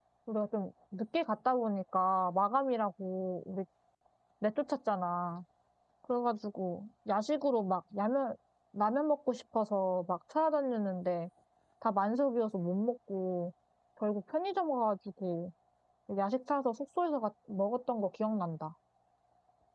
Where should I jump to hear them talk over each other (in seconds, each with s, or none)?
none